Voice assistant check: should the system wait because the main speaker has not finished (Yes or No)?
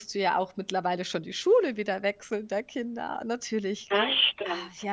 Yes